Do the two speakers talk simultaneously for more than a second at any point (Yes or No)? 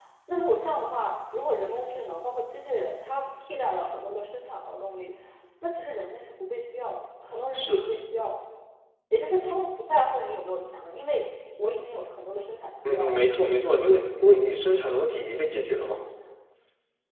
No